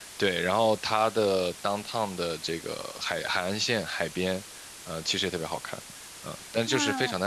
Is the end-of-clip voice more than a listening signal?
Yes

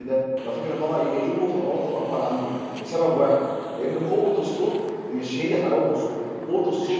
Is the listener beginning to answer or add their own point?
No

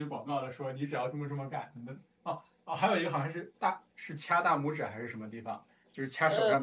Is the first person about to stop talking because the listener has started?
No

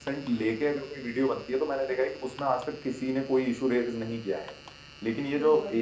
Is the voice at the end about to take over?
No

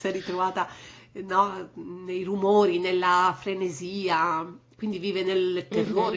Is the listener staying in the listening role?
No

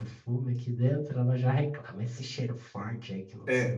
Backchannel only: No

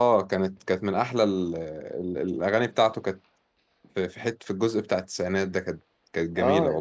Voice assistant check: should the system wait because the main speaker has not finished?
No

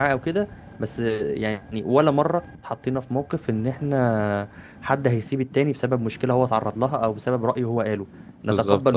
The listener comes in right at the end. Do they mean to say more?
No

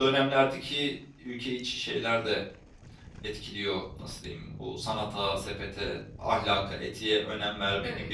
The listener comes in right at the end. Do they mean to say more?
No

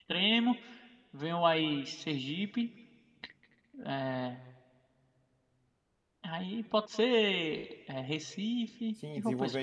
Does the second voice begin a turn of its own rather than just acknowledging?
Yes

